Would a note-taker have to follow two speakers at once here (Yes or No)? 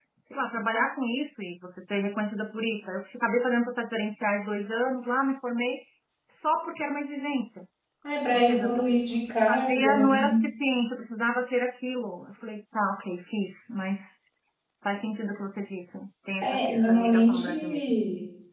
Yes